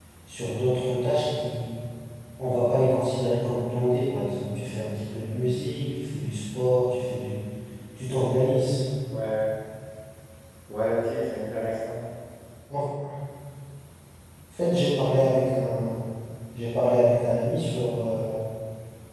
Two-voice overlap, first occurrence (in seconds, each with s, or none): none